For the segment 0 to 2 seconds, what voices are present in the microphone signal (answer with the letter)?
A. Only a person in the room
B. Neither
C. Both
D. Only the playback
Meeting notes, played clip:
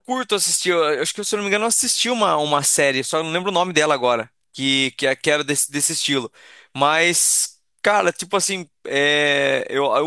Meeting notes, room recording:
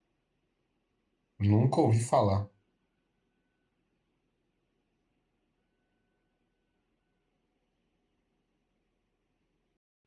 A